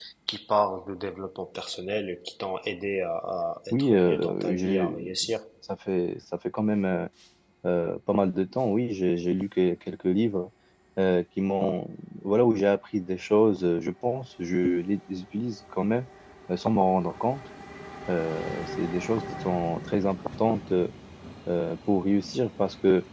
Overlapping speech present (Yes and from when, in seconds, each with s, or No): Yes, from 3.7 s